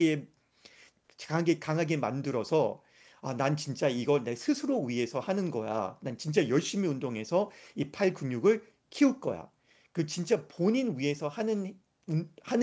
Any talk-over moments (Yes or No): No